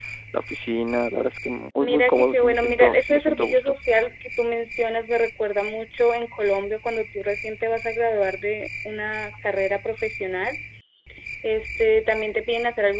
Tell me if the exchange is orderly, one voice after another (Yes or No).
No